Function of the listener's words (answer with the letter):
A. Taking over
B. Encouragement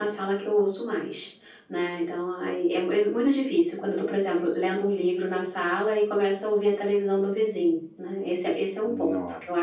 B